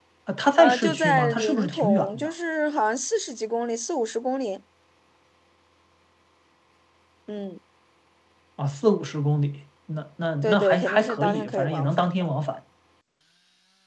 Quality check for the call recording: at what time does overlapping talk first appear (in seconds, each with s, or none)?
0.6 s